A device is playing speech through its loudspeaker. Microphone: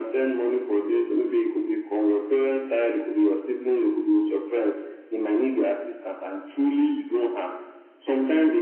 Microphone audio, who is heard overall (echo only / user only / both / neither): echo only